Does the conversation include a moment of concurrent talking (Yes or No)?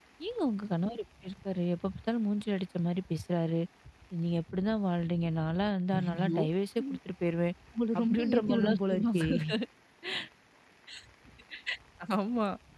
Yes